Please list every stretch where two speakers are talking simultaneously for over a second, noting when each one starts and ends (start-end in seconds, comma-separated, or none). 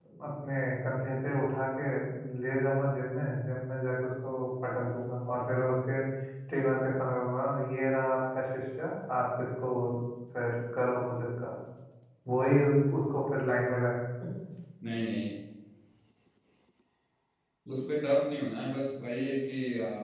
none